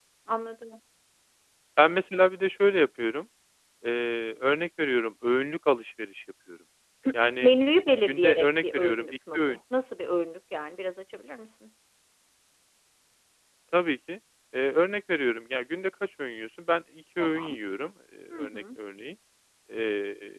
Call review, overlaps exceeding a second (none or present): present